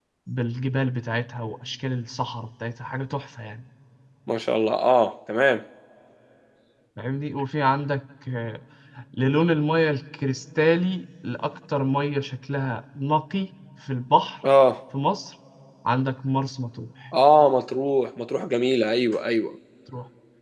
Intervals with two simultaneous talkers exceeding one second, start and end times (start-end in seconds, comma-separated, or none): none